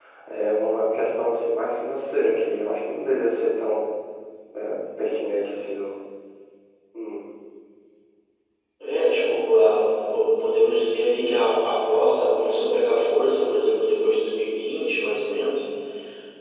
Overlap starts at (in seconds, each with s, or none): none